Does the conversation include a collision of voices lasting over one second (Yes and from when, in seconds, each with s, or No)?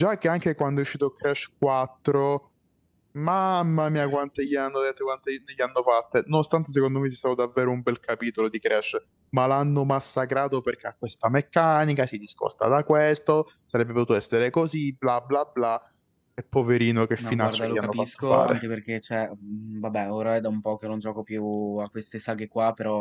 Yes, from 17.2 s